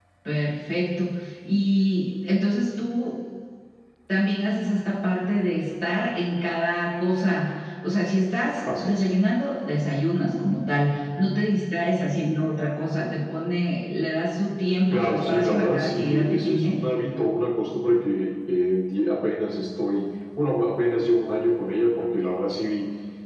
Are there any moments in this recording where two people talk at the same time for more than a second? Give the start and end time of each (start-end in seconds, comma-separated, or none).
14.9-16.8